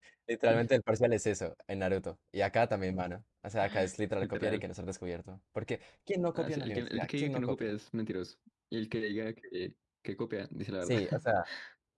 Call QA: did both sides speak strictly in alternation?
No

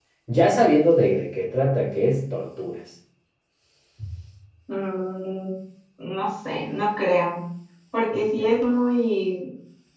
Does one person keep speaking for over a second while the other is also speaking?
No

